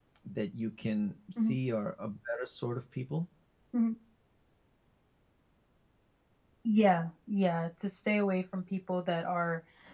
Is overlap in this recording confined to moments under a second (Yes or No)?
Yes